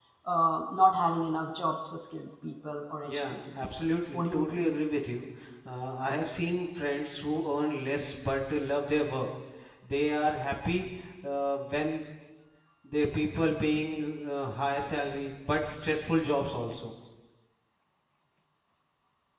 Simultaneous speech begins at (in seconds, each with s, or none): 3.0 s